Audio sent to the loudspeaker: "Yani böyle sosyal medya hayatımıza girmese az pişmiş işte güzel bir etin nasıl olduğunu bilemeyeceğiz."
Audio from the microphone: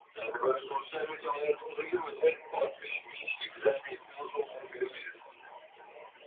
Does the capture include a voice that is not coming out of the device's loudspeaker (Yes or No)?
No